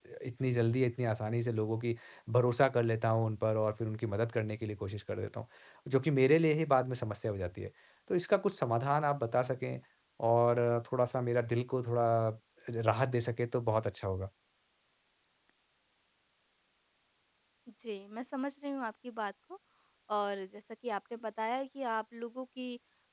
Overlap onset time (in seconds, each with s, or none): none